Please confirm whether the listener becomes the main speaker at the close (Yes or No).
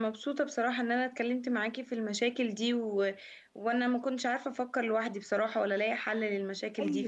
Yes